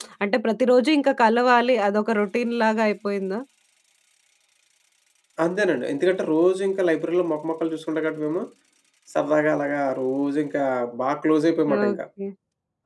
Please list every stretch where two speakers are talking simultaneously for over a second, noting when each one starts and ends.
none

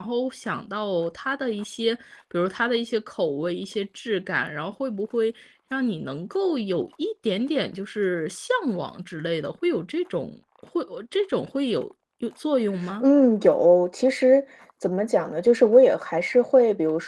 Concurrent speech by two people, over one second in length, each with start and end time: none

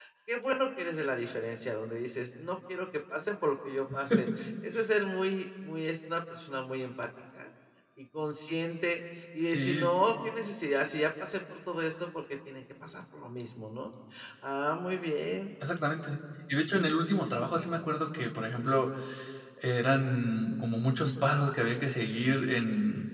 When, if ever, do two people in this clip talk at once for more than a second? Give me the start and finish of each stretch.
none

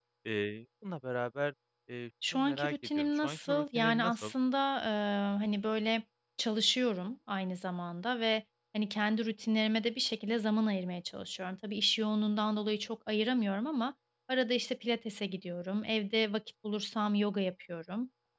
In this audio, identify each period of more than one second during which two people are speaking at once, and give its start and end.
2.3-4.3

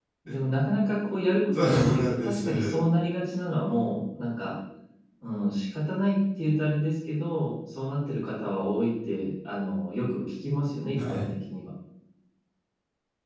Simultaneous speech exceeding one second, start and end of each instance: 1.5-2.7

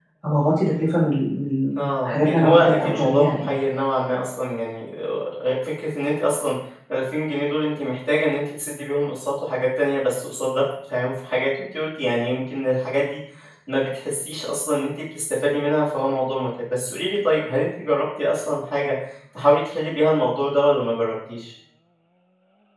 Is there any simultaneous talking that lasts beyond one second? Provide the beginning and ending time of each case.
1.8-3.5

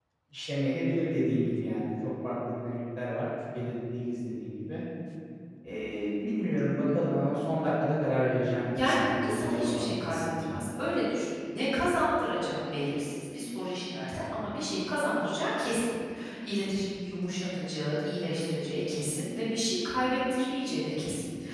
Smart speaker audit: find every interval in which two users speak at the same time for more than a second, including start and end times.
8.8-10.6

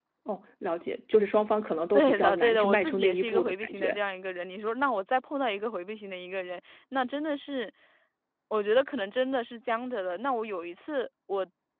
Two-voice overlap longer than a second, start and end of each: 1.9-4.0

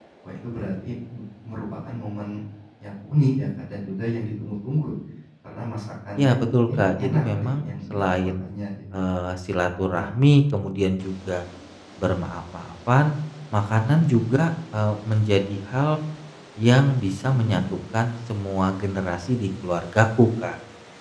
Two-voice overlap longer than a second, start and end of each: 6.2-8.4

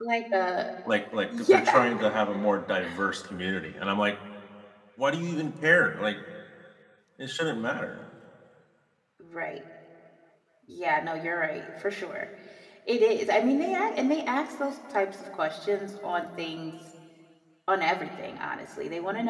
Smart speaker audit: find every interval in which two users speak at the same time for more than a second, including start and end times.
none

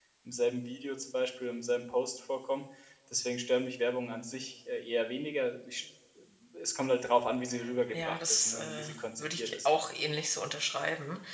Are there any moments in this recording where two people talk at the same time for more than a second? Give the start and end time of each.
7.9-9.7

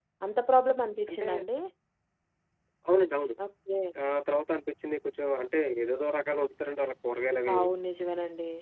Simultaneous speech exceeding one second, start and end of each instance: none

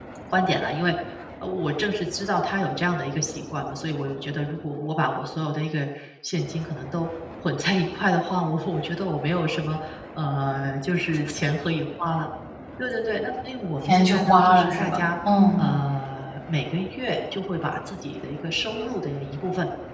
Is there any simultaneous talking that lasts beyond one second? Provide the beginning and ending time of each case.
13.8-15.1

